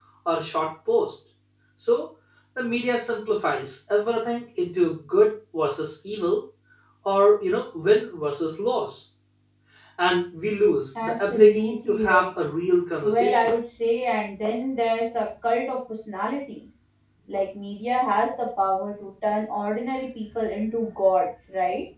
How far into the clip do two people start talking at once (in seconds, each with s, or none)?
11.0 s